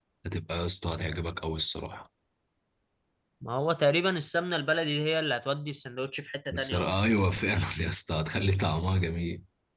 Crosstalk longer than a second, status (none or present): none